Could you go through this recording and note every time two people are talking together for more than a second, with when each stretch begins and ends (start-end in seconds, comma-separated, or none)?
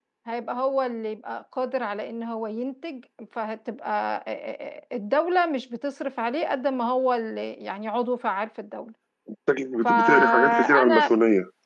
9.8-11.2